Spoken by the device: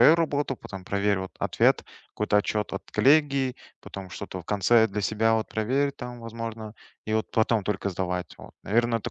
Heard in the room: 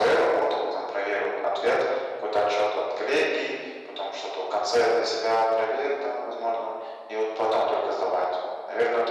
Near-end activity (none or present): none